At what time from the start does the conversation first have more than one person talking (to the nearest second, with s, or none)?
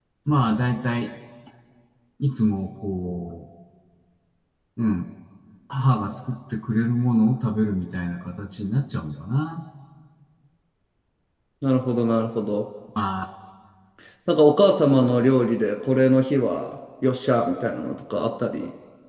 none